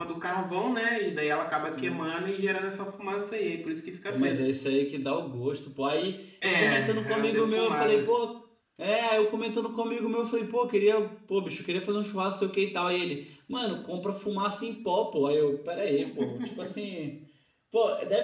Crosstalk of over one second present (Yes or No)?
Yes